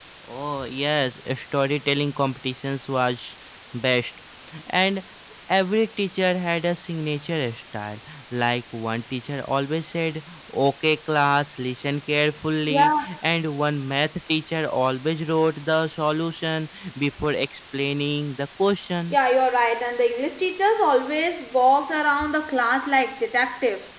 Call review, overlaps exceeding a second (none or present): none